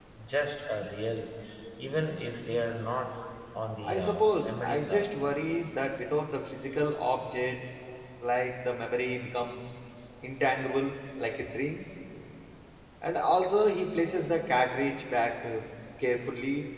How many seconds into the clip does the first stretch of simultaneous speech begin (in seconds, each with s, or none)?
3.8 s